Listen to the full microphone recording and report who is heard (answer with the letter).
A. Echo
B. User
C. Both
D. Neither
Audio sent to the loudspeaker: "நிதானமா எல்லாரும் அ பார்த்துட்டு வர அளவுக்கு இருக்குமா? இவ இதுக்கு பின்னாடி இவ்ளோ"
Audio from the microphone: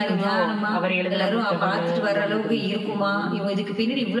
C